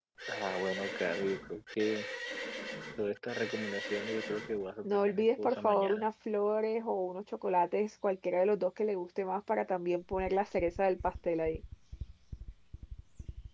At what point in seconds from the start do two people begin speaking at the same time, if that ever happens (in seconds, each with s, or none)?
4.8 s